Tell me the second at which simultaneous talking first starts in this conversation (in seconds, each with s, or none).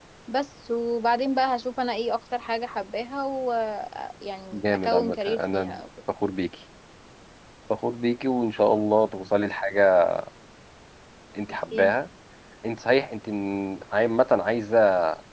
4.5 s